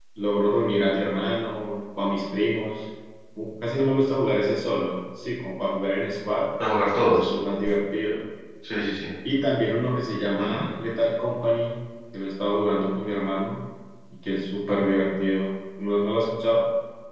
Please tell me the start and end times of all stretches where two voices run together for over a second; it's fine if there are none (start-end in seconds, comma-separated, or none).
none